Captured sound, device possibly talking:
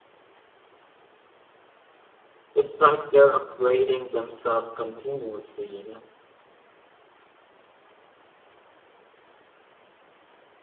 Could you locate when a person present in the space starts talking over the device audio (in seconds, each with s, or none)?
2.5 s